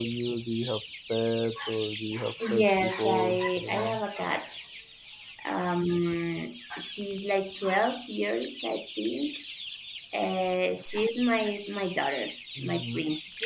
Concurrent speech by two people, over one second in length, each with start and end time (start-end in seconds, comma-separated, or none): 2.4-4.0